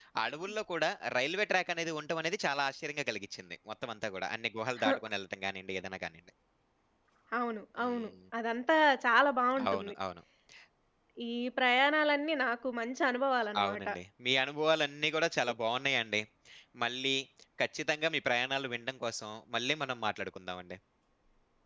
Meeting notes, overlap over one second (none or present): none